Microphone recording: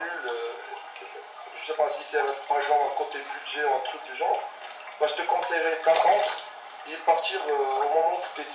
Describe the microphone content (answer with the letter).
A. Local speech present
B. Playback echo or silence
B